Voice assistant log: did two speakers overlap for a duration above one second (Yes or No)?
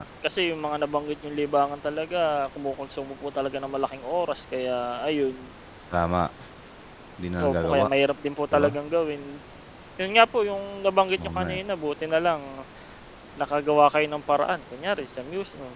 No